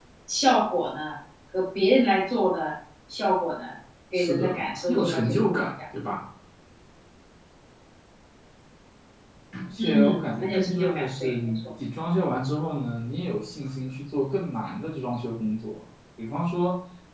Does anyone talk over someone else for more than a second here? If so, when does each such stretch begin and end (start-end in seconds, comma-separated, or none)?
4.1-5.6, 9.8-11.6